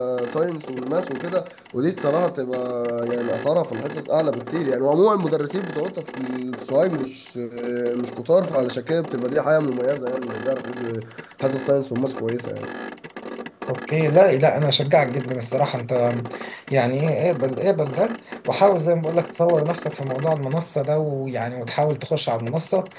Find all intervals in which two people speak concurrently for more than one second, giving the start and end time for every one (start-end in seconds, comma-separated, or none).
none